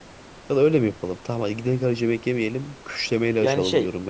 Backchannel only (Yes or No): Yes